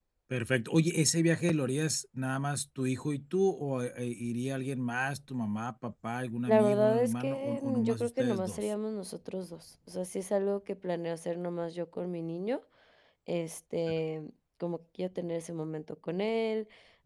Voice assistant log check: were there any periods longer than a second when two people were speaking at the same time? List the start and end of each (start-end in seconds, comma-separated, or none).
6.5-8.7